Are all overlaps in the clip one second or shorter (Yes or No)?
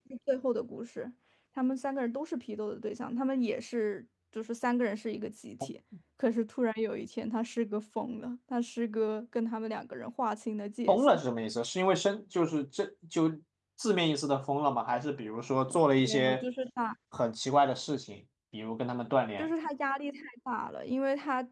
Yes